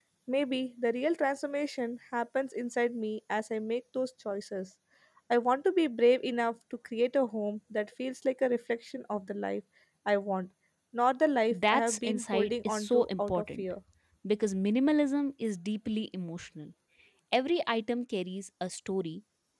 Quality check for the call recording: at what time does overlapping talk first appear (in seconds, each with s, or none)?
11.5 s